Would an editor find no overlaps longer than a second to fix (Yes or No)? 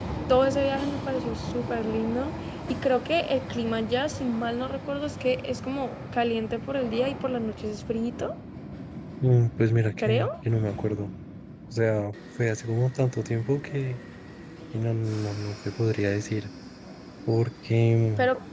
Yes